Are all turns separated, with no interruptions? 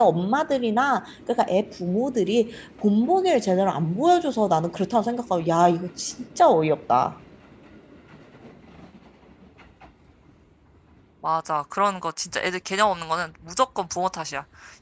Yes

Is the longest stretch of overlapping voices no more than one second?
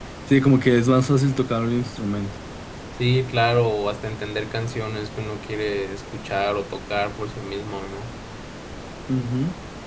Yes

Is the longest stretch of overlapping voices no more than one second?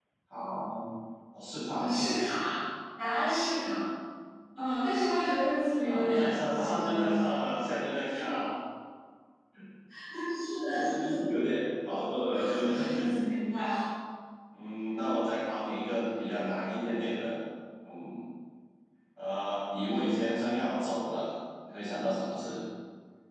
No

